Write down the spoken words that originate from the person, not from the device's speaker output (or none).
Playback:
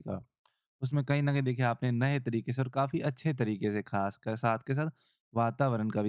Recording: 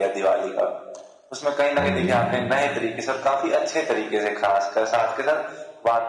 हाँ जी।